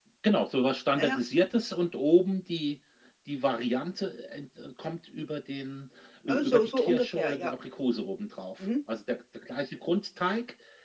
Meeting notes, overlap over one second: present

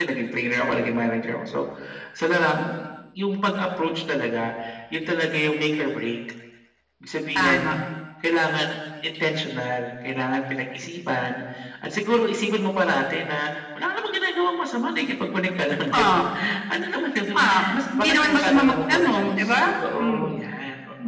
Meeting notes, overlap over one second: present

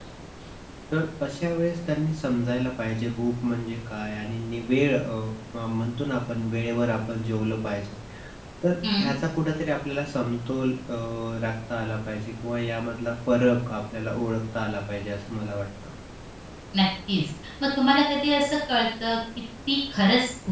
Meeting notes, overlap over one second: none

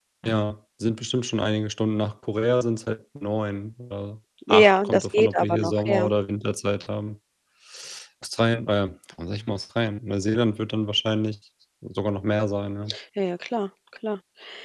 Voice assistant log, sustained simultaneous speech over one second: present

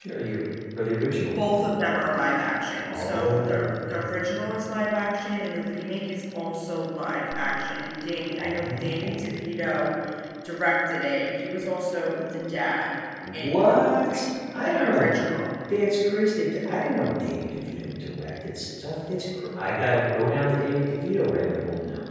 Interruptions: present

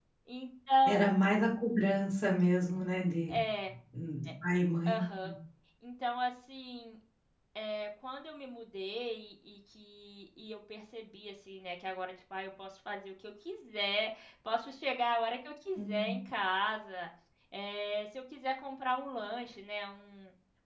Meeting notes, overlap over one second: none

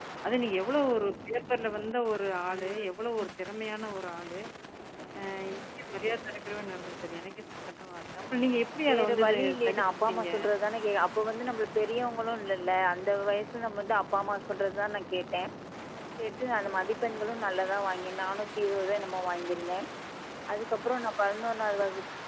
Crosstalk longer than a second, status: present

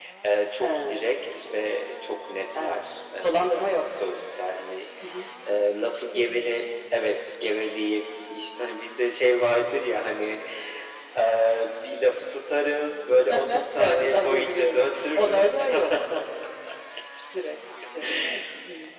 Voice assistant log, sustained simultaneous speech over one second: present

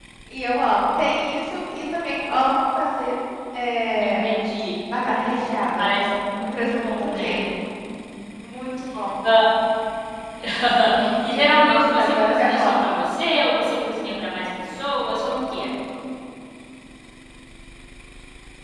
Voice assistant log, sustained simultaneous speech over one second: present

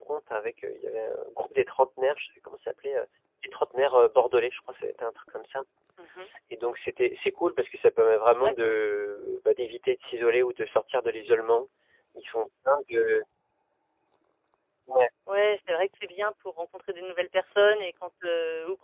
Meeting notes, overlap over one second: none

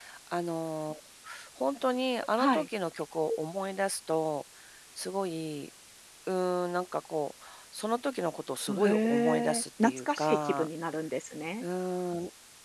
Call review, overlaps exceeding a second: present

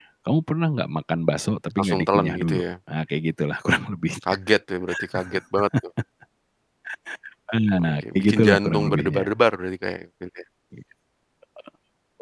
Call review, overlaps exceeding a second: present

